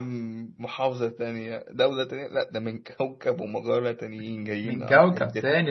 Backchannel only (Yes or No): No